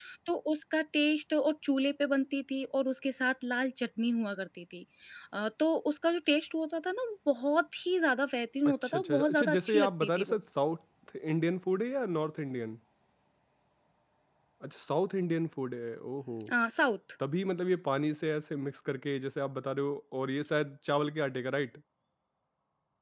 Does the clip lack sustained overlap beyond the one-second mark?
No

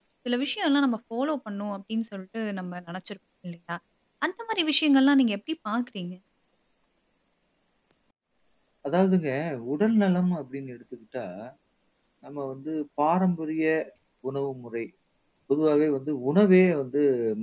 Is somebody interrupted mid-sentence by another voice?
No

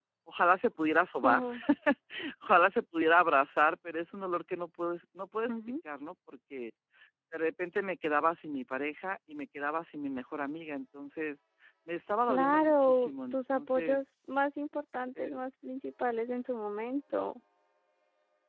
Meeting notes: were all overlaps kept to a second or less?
No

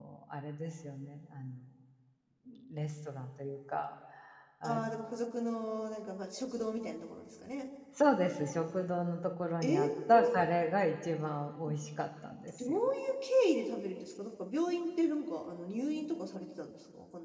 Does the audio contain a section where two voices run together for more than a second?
No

